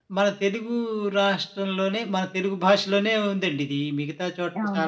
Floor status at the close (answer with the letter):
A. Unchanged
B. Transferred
A